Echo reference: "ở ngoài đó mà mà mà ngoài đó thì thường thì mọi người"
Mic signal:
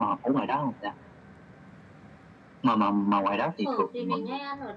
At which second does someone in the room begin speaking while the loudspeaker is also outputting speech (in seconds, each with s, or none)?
3.2 s